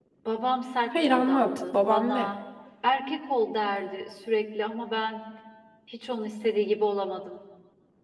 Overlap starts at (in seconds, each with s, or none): 1.0 s